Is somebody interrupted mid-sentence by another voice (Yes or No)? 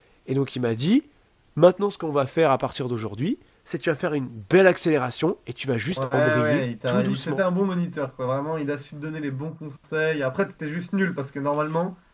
Yes